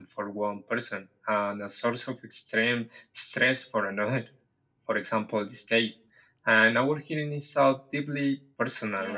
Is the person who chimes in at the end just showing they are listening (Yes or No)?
No